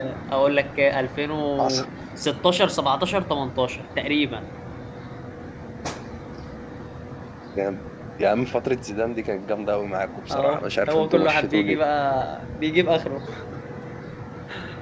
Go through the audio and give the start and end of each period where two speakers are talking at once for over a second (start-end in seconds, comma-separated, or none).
10.3-11.8